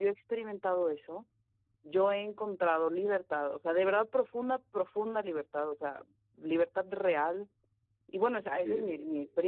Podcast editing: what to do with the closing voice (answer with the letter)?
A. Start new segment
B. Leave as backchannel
B